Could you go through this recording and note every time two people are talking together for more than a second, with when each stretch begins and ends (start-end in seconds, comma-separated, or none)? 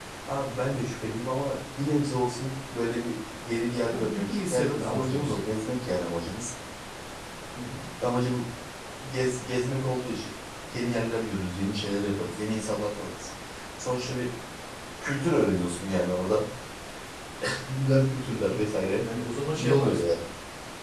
3.9-5.3